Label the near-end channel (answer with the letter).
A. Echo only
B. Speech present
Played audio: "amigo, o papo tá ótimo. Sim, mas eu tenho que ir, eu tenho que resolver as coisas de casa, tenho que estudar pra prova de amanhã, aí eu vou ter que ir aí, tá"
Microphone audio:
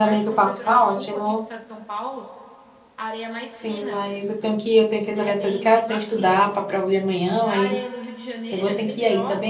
B